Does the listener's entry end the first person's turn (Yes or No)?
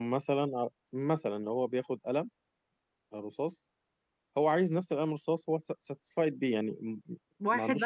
Yes